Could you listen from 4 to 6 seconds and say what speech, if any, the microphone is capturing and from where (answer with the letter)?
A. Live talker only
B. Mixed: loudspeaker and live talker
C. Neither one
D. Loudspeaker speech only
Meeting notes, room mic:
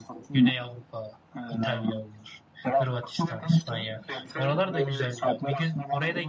B